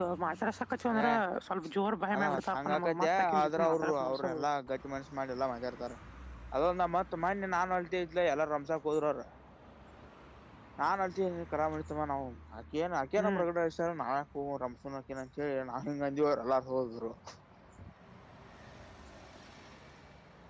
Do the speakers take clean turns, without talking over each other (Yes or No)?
No